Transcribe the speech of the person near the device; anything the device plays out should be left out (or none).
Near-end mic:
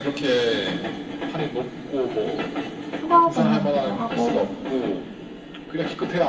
휴가 개념이기도 하고